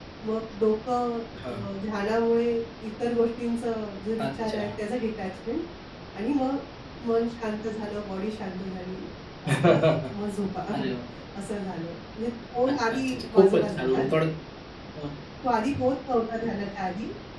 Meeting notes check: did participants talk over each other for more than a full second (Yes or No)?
Yes